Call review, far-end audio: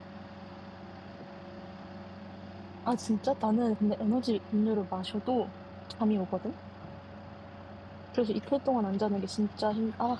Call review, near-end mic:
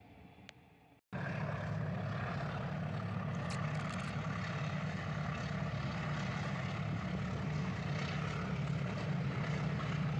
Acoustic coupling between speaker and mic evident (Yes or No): No